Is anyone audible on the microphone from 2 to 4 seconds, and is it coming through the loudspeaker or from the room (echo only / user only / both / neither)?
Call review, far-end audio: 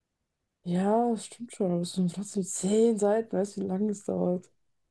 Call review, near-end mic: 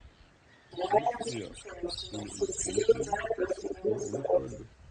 both